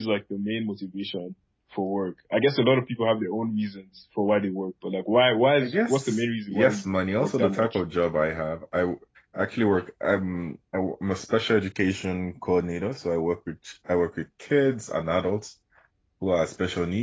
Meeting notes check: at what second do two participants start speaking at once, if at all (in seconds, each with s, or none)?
5.6 s